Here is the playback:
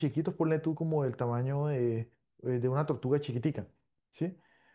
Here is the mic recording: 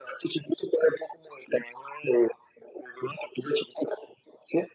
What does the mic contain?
echo only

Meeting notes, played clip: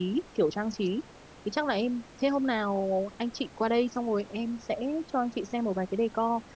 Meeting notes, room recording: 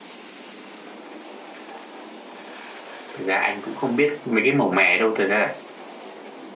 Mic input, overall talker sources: user only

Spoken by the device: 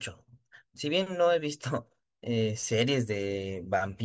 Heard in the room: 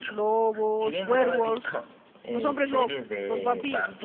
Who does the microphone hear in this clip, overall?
both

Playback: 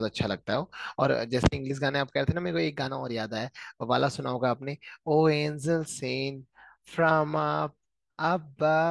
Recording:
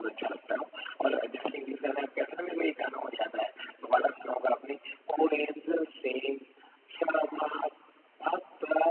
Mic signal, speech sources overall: echo only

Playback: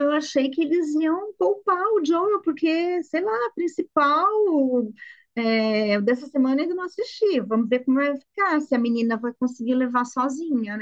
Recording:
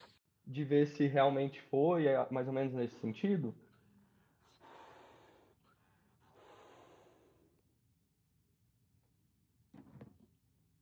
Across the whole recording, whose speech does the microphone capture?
user only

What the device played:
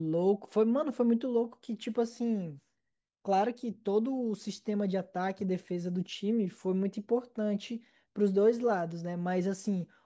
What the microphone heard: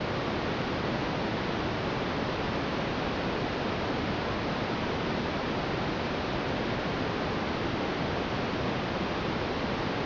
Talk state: neither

